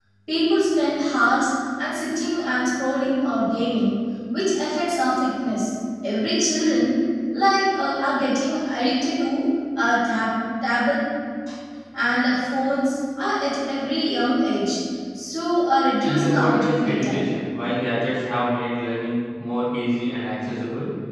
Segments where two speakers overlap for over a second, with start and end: 16.0-17.3

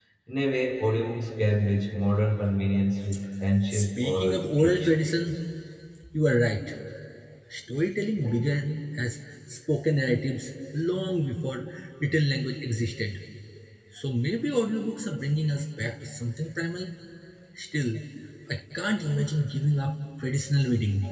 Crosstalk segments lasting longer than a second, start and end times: 3.7-5.0

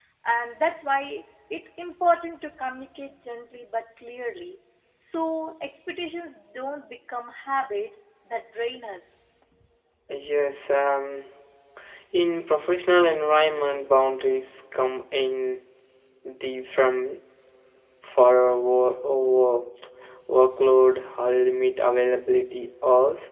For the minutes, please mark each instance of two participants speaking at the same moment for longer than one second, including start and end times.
none

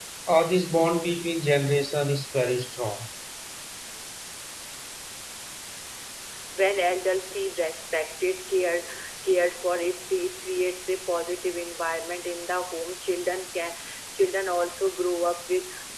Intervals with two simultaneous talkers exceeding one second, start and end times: none

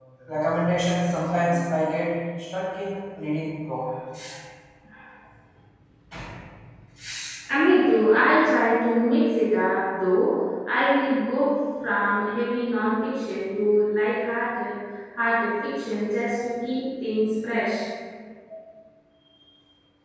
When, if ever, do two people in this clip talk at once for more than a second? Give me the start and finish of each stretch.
none

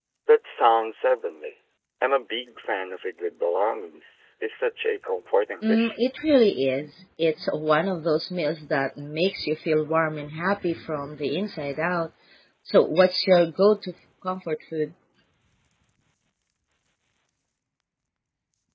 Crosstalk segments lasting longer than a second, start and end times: none

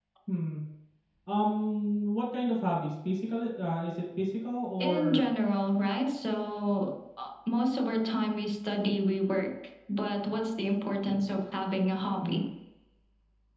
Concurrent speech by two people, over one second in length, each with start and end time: none

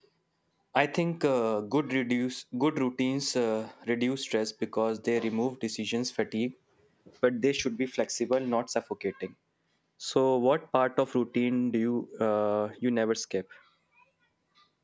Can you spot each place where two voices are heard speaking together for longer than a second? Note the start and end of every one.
none

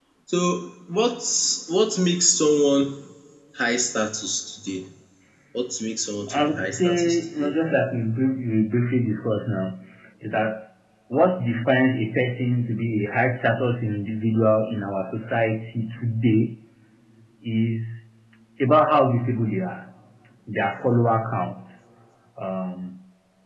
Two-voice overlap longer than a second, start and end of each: 6.3-7.5

